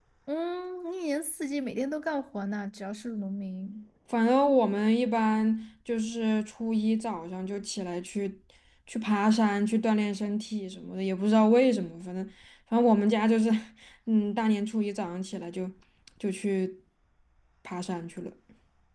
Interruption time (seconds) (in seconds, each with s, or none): none